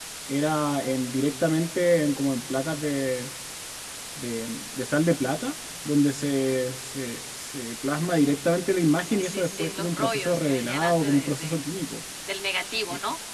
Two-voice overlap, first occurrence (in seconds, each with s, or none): 9.0 s